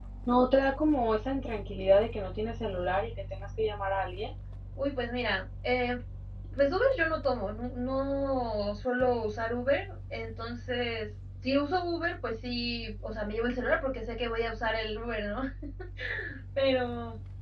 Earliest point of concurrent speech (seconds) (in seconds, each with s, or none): none